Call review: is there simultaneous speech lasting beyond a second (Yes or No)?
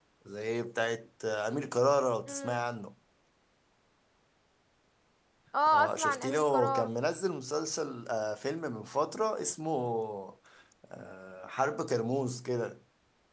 Yes